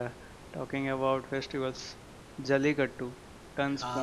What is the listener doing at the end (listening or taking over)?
listening